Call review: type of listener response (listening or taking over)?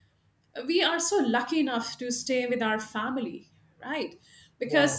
listening